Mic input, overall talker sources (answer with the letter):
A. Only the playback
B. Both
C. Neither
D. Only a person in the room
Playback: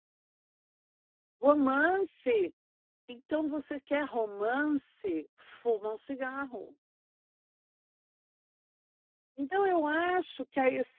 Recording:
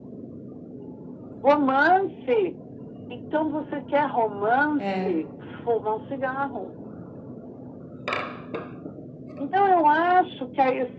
B